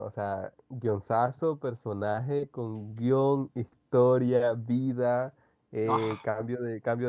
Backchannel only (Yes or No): Yes